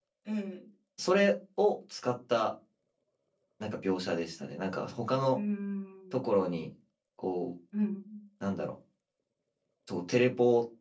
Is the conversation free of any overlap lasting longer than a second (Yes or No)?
Yes